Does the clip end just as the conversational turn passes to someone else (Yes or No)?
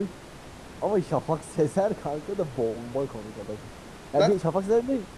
No